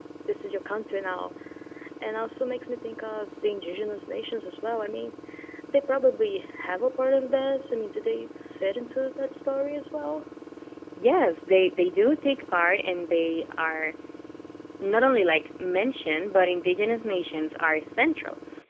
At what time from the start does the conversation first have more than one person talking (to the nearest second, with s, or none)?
none